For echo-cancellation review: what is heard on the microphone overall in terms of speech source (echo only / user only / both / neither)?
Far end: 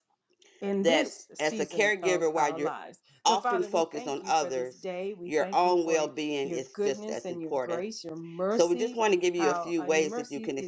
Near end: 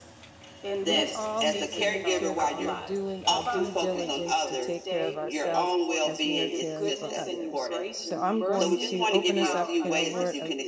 both